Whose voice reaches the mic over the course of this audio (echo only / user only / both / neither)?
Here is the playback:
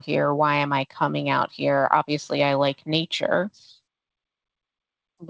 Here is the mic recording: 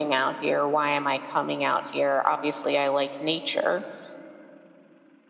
echo only